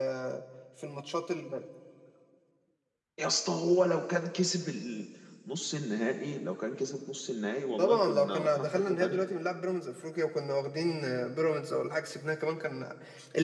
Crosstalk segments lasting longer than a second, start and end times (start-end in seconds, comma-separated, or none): 7.8-9.2